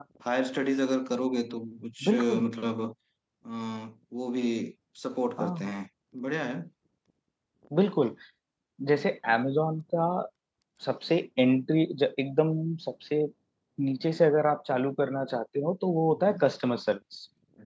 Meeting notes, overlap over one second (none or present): none